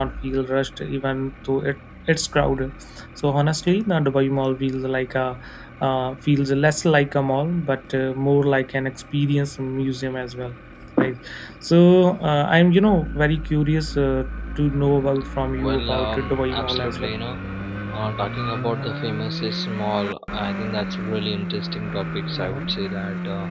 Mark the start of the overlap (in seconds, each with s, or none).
15.6 s